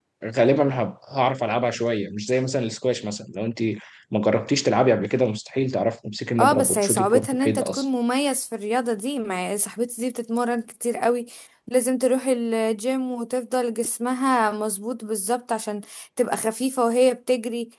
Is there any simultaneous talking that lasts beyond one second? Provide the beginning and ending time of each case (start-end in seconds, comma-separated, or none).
6.4-7.8